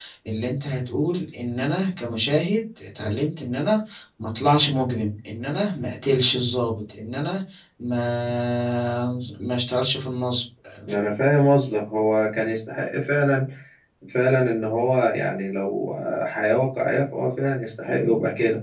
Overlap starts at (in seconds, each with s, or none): none